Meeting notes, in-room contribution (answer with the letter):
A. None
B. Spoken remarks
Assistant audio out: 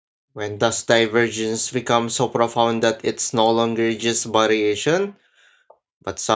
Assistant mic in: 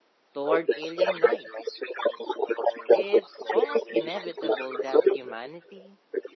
B